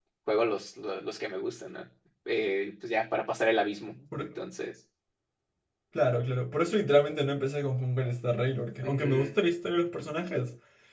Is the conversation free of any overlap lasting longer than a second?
Yes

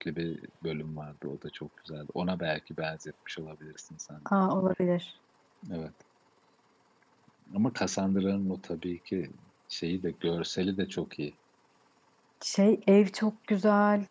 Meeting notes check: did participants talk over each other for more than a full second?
No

